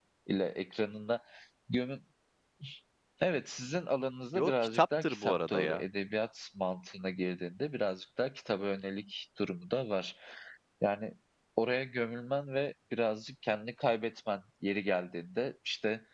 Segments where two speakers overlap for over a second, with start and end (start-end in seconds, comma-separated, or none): 4.3-5.8